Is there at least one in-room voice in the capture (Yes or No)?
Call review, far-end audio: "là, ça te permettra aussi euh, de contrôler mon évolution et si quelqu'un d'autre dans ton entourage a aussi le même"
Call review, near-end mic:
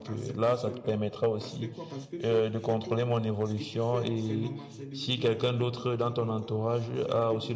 Yes